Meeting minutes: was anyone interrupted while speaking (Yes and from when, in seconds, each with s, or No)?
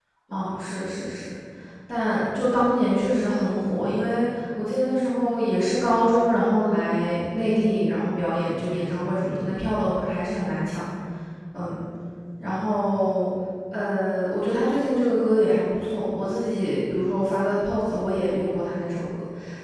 No